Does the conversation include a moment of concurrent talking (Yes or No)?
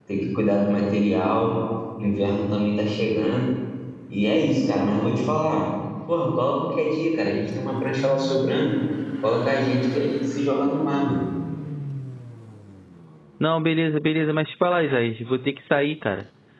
No